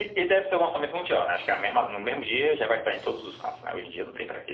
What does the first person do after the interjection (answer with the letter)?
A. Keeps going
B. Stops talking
B